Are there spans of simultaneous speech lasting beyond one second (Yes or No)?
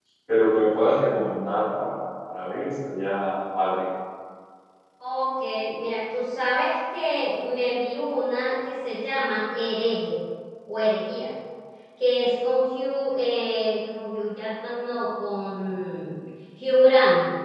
No